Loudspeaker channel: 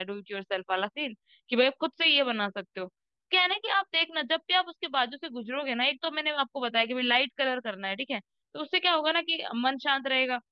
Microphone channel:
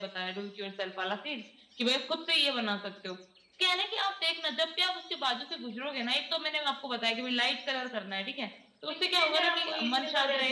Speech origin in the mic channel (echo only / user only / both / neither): both